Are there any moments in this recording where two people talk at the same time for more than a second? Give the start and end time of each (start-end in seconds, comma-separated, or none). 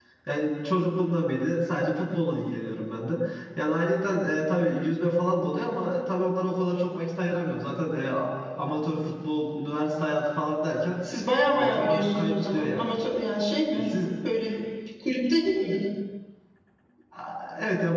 11.5-12.9